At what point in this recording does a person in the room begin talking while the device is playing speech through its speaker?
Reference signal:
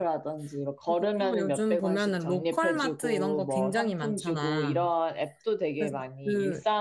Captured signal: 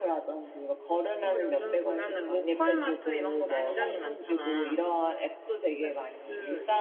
3 s

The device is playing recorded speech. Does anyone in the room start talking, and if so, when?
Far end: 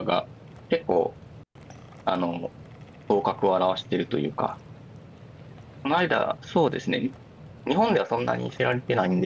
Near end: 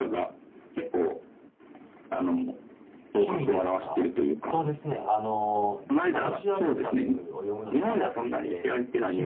3 s

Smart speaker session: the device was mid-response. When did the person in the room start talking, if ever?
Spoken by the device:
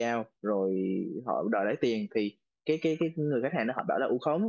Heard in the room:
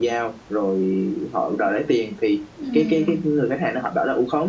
3 s

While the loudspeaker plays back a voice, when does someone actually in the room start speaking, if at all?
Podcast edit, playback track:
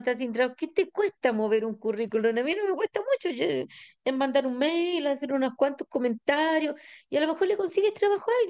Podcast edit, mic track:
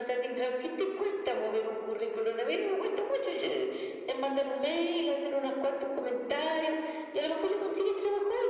none

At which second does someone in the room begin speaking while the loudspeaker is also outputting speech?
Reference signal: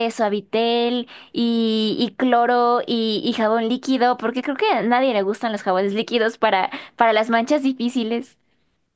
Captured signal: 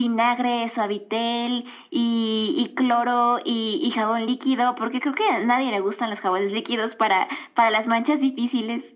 none

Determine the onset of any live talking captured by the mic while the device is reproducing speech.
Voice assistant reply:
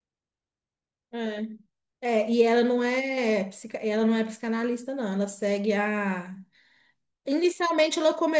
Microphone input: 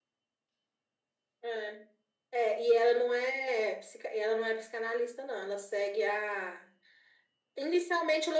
none

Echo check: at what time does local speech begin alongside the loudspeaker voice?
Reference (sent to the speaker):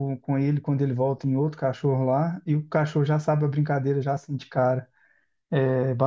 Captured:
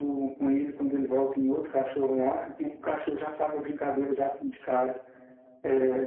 none

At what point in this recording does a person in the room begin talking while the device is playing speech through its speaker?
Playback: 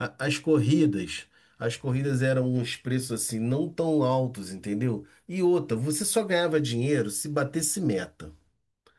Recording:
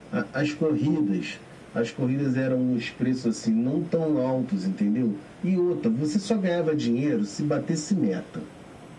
none

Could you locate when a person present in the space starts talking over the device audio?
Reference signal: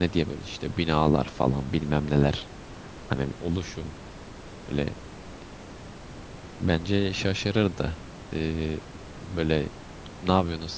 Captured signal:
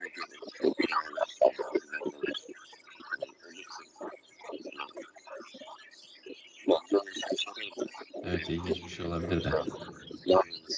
8 s

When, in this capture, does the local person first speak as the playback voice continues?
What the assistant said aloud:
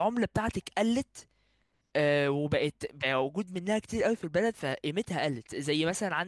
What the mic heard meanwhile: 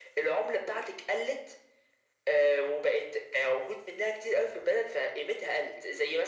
none

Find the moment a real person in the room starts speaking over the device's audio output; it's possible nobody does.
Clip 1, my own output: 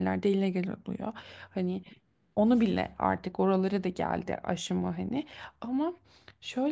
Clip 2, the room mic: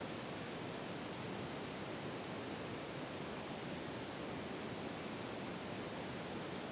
none

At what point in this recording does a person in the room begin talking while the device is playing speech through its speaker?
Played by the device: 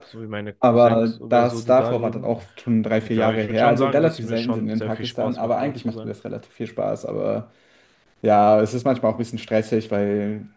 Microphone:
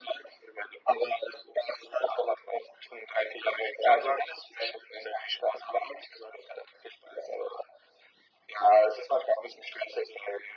none

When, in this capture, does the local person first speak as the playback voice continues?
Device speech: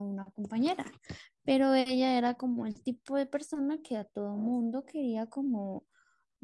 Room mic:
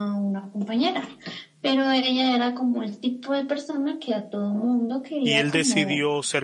5 s

